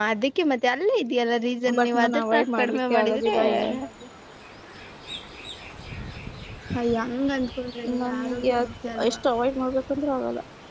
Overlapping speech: Yes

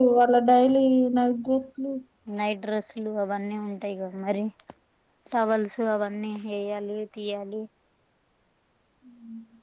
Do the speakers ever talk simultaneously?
No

